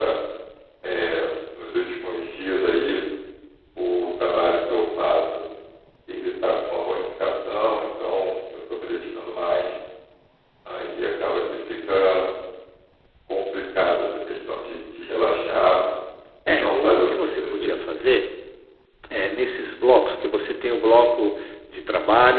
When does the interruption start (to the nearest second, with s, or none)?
16 s